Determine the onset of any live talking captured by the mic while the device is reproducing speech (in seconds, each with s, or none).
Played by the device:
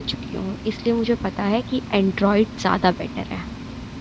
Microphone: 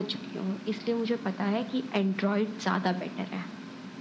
none